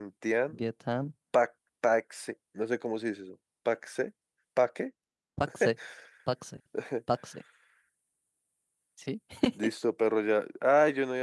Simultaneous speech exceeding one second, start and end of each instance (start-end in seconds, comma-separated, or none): none